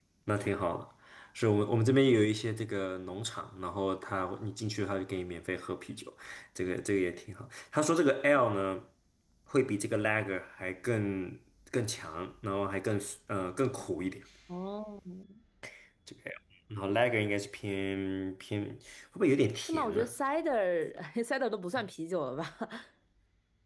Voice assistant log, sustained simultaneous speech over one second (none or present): none